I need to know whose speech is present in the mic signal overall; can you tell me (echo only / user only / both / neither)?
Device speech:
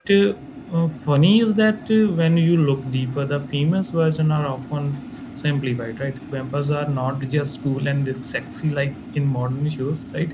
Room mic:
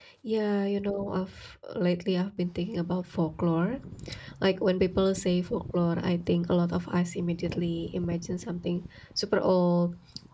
user only